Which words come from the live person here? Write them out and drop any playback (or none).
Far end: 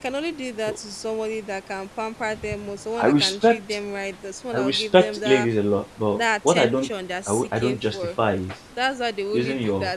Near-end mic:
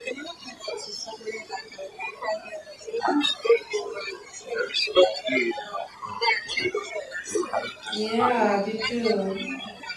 yeah they do